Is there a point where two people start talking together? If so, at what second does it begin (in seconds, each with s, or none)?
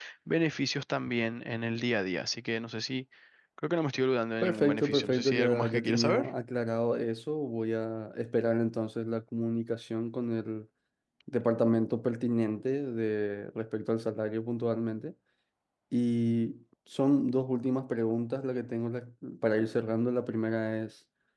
4.4 s